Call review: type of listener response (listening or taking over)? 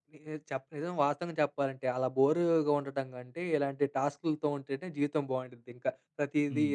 taking over